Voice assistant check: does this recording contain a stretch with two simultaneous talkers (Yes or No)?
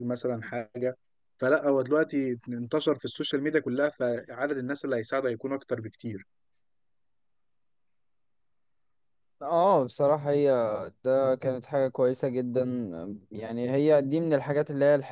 No